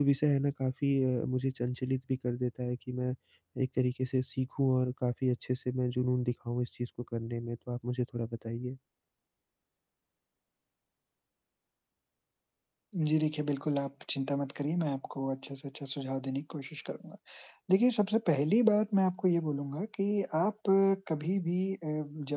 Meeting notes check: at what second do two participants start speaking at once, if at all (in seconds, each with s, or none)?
none